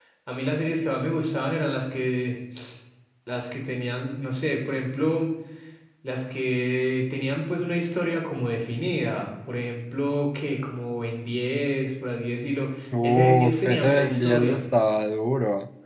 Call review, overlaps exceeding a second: present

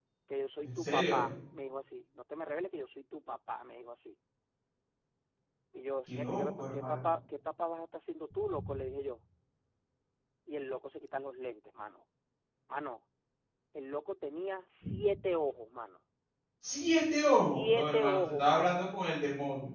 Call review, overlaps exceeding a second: present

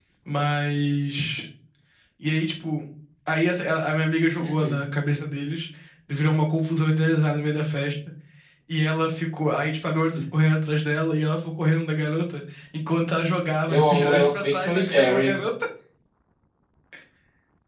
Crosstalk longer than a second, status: present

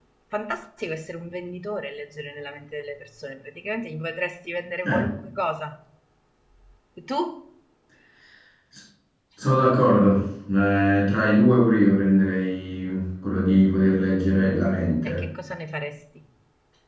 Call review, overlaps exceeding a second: none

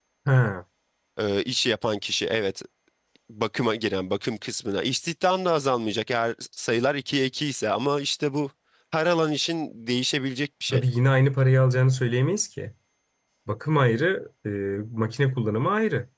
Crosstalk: none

